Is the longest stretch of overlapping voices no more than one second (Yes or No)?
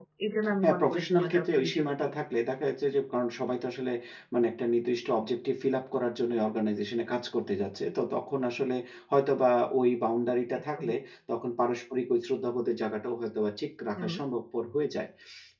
No